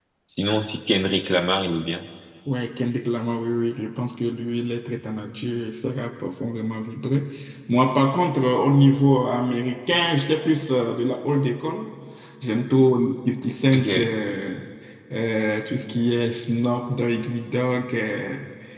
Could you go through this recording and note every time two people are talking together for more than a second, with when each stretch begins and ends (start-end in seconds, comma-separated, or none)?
none